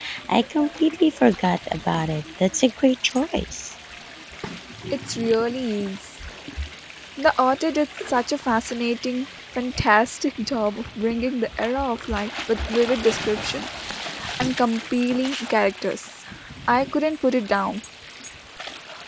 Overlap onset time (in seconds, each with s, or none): none